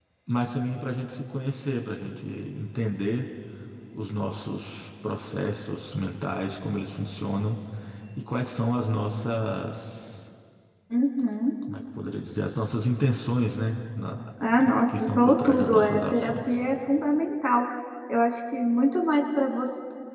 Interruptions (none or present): present